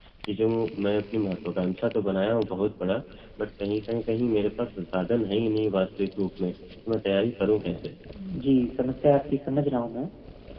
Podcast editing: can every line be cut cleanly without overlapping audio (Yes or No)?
Yes